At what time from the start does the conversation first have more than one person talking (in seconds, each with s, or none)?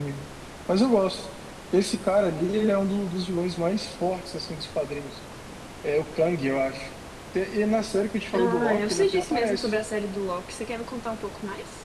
8.3 s